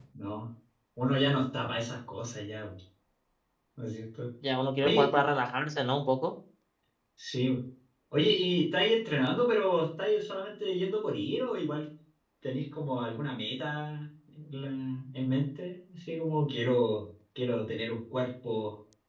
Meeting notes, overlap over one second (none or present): none